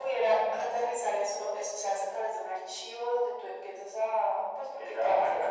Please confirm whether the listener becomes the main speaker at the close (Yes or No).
Yes